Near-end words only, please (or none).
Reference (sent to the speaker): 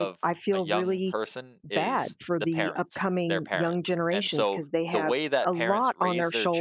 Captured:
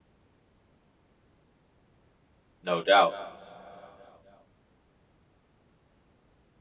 no doubt